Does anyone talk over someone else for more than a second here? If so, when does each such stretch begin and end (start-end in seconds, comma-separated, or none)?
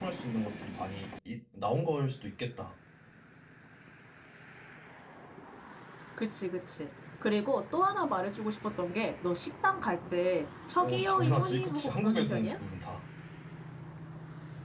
10.8-12.5